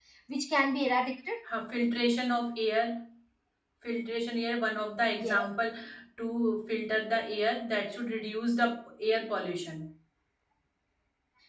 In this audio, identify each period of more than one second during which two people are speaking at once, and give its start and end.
none

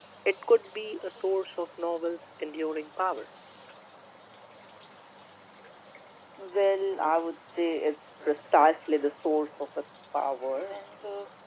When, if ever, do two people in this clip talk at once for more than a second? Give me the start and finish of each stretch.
none

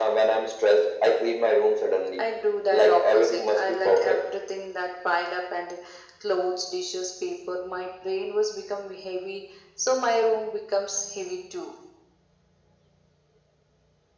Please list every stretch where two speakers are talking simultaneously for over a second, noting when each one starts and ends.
2.7-4.2

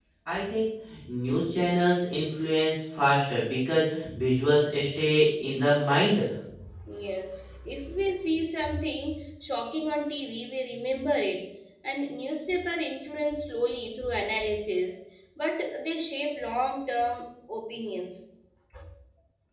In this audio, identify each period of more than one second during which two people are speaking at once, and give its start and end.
none

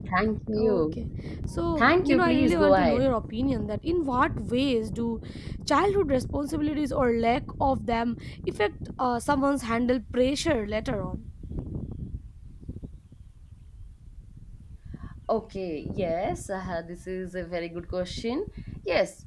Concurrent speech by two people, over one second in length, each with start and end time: 1.8-3.1

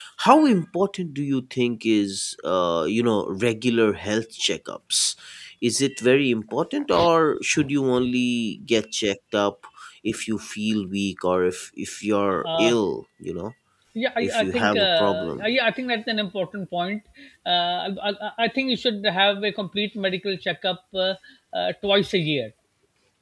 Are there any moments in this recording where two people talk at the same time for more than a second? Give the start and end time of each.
14.2-15.4

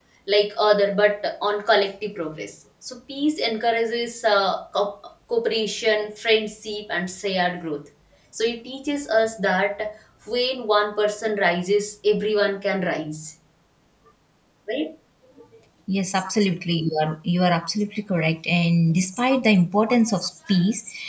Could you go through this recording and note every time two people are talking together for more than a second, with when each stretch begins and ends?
none

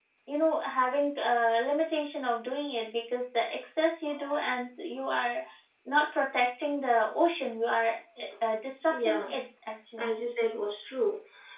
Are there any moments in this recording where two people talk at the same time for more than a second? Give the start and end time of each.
none

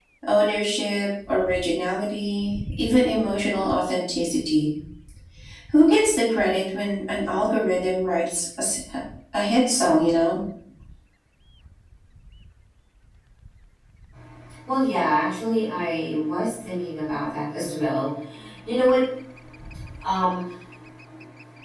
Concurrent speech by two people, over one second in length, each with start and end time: none

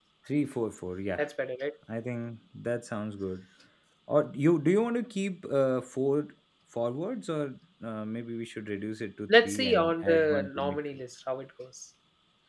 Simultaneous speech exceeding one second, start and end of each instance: 9.3-10.8

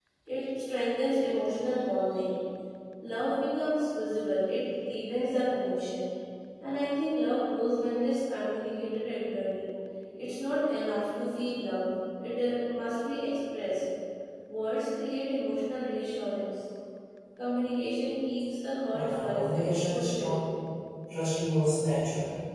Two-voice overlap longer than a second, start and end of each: 18.9-20.4

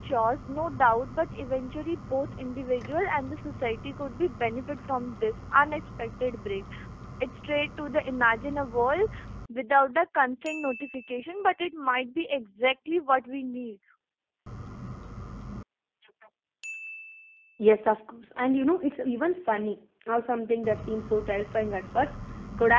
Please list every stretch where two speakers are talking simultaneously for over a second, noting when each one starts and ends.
none

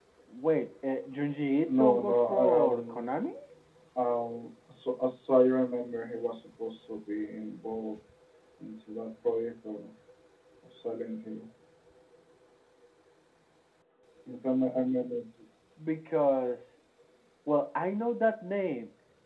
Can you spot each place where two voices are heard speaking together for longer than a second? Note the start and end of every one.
1.7-3.0

